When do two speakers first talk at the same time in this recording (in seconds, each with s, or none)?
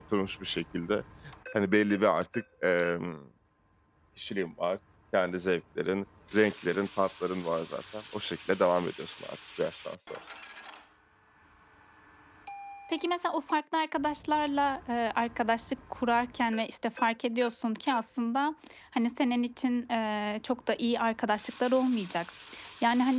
none